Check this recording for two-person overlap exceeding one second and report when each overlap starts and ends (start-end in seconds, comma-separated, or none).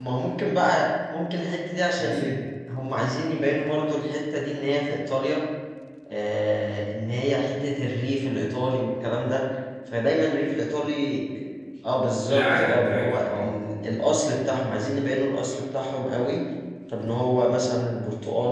12.3-13.5